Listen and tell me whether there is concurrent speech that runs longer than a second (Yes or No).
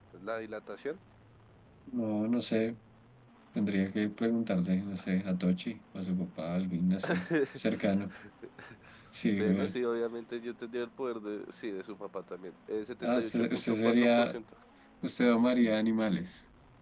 Yes